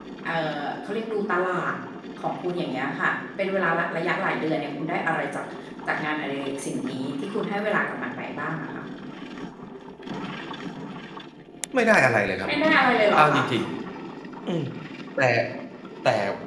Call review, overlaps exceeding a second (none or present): none